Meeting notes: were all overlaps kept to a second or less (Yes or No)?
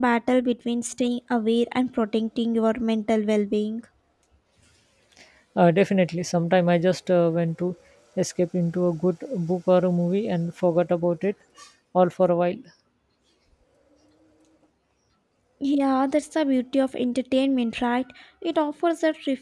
Yes